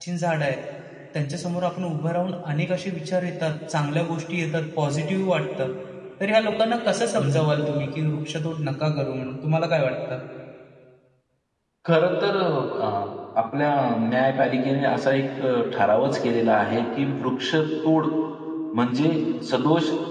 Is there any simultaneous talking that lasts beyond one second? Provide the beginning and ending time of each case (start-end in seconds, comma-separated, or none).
none